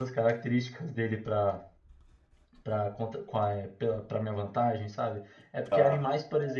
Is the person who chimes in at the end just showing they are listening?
Yes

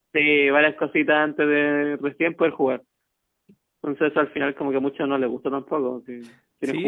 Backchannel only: No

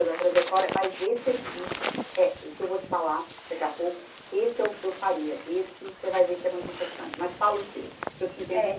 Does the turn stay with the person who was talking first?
No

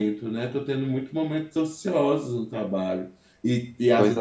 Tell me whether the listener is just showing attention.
Yes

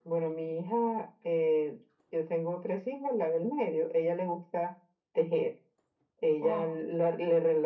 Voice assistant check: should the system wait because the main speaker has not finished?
Yes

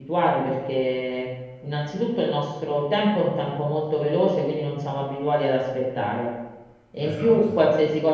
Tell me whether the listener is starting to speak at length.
No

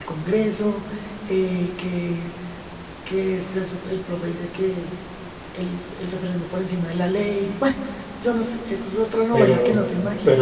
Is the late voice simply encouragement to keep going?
No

